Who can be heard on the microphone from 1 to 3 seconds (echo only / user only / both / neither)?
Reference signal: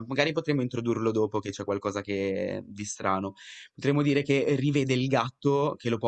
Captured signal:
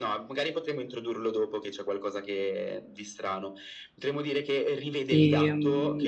echo only